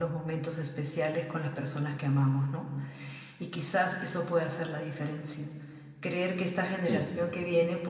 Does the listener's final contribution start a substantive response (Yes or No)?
No